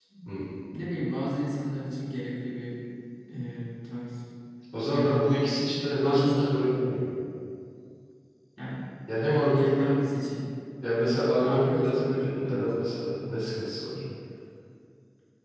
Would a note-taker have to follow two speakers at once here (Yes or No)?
Yes